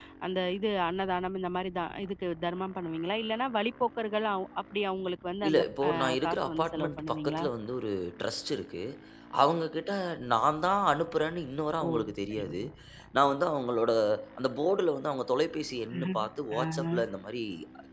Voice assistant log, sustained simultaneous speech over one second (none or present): present